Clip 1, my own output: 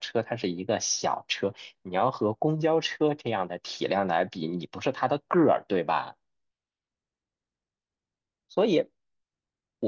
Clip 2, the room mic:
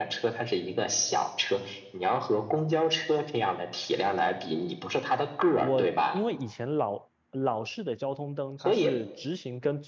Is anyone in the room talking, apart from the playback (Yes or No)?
Yes